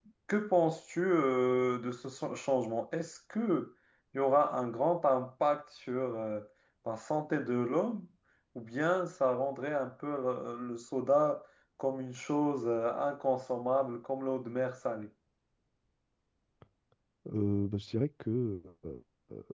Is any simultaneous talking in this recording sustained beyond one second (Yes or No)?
No